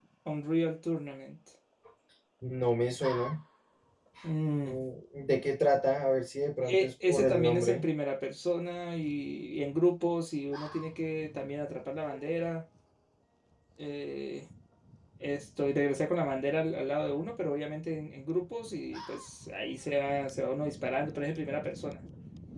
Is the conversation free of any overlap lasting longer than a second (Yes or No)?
No